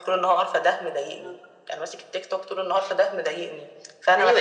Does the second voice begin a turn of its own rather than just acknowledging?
Yes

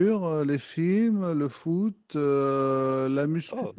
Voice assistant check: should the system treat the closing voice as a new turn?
No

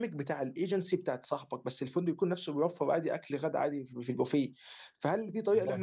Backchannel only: Yes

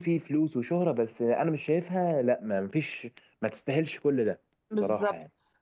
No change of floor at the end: No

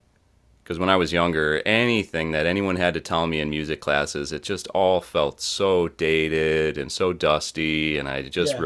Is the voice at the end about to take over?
No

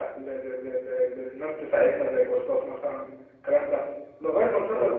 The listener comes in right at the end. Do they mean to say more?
No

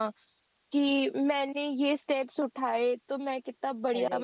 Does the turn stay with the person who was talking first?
Yes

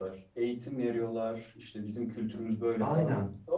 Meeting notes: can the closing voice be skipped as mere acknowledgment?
No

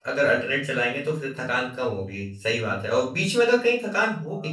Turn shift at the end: No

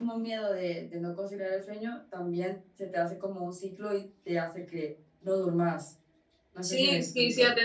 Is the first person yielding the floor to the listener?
Yes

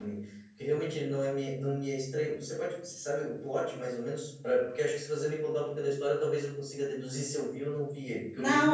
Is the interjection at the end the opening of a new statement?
Yes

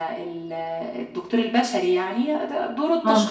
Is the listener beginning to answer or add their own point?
No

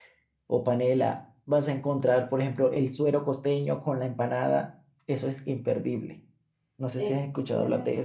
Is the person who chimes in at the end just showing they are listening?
No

